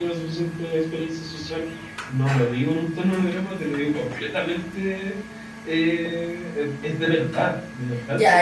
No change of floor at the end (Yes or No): No